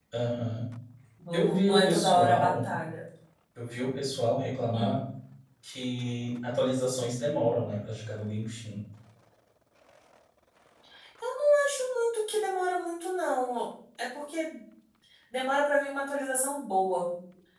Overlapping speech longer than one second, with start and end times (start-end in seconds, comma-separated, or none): 1.3-2.5